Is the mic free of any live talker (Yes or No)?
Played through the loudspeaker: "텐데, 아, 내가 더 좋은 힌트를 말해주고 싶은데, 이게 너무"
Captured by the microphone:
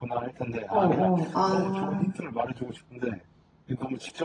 No